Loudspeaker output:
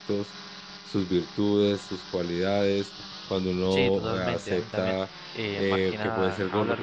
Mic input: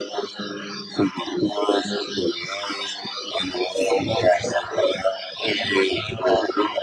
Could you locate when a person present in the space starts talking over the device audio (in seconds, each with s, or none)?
none